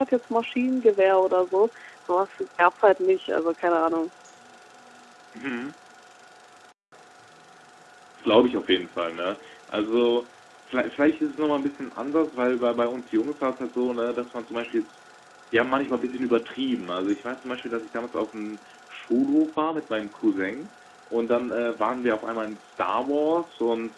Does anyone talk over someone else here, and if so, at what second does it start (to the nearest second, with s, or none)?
none